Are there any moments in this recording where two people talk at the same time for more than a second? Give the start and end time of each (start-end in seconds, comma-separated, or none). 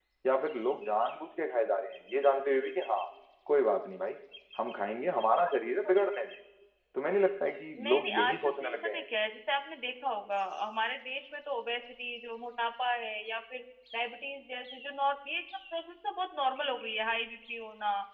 7.8-9.0